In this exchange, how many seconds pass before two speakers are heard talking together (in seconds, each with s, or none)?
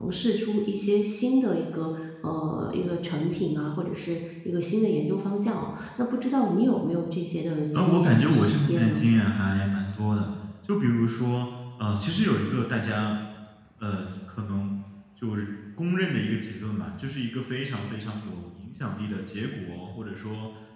7.7 s